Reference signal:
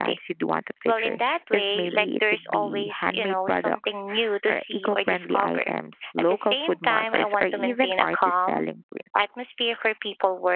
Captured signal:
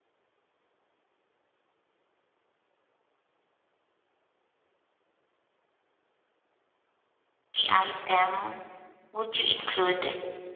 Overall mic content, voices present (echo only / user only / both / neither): user only